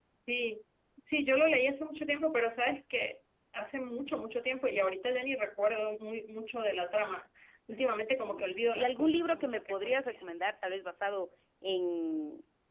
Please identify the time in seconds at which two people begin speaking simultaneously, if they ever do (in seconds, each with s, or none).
8.1 s